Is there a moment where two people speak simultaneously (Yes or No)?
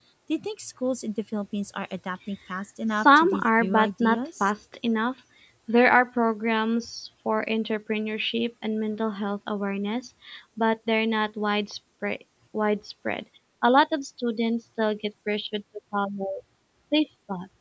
Yes